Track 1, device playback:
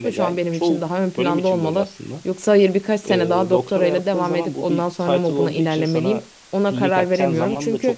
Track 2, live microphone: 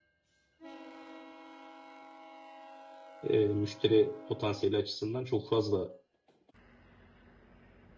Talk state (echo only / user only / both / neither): user only